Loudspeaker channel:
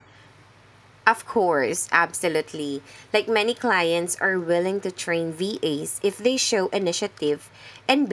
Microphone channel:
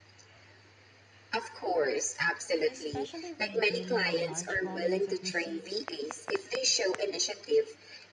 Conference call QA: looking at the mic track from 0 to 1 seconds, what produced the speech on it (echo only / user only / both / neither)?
neither